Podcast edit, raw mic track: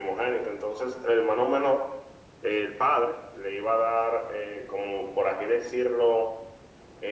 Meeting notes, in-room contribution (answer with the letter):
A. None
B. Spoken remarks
A